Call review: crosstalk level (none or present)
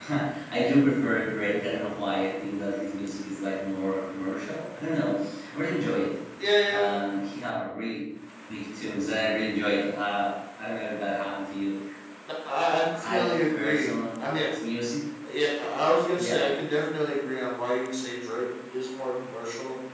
present